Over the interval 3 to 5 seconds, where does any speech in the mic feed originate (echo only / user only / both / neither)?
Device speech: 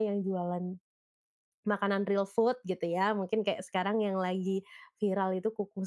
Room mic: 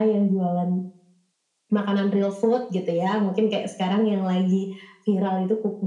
echo only